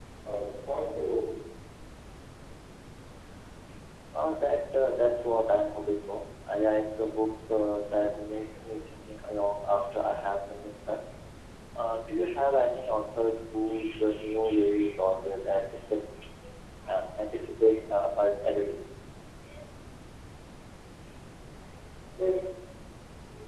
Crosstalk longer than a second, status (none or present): none